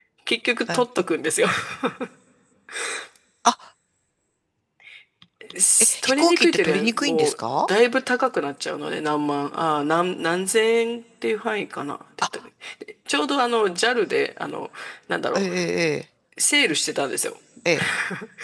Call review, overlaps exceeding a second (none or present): present